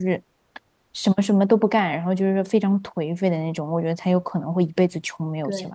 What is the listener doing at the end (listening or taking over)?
listening